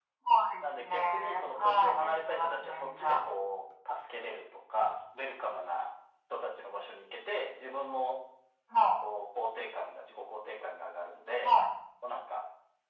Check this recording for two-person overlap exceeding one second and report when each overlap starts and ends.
0.6-3.2

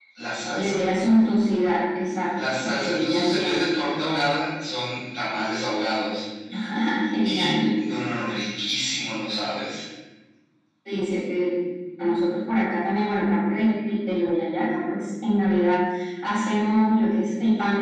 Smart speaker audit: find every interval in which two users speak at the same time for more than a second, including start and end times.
2.3-3.6

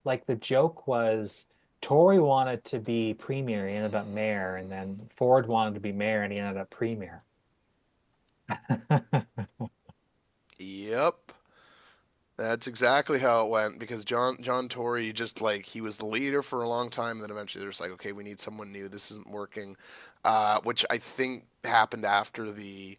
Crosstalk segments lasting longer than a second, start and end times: none

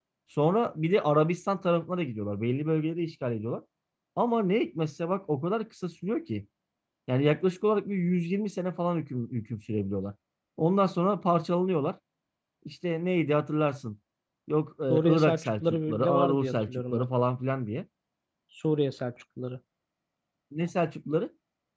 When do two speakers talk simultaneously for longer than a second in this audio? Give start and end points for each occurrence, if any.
14.9-17.1

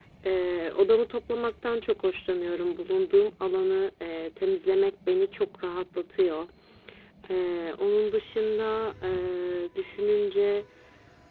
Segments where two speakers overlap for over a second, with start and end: none

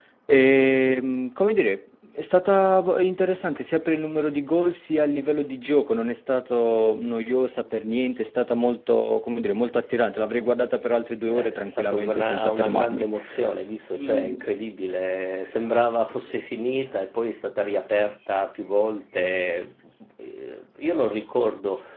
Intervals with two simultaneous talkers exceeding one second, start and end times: 11.3-13.0

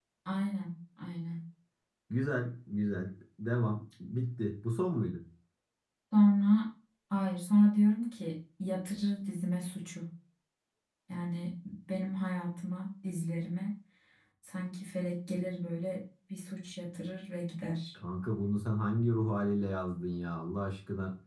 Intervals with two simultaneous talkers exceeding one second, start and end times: none

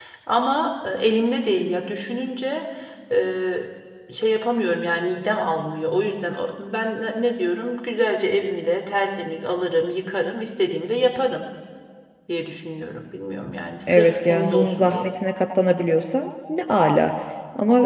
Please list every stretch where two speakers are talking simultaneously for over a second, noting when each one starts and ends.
13.9-15.1

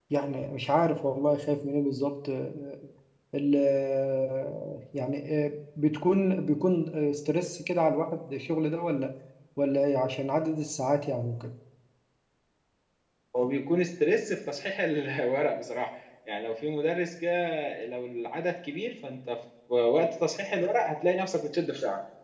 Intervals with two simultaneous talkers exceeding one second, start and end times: none

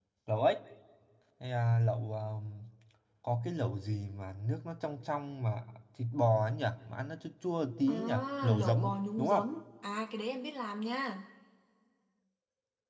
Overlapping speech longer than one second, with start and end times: 7.9-9.4

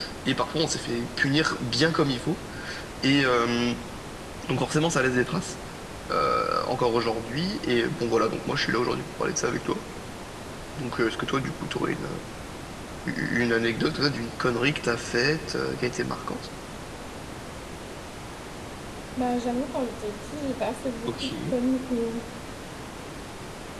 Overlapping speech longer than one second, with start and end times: none

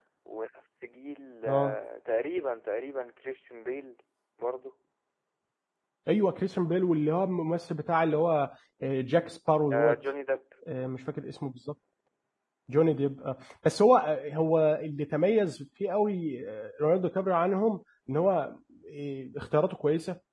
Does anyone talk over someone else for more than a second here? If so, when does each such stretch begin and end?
none

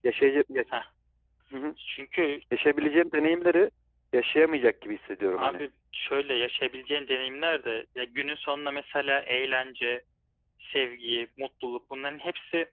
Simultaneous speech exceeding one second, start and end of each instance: none

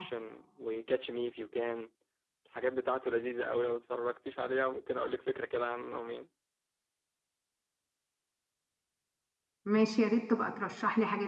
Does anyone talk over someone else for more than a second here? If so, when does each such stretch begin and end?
none

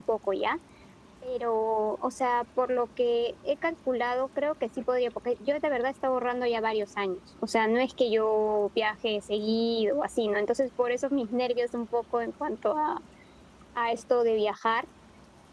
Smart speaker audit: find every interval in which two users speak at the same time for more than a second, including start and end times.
none

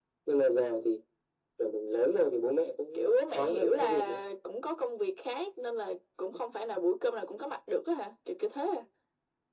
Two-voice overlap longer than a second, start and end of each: 2.9-4.2

